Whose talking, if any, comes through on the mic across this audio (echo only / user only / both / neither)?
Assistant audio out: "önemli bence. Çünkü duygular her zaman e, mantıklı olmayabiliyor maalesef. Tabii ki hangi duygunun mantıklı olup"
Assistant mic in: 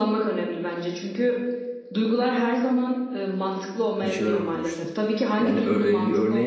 both